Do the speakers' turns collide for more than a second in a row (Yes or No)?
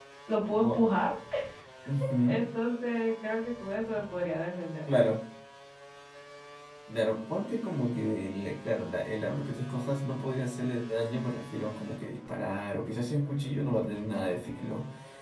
No